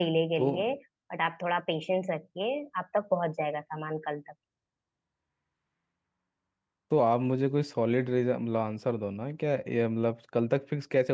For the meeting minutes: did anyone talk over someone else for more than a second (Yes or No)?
No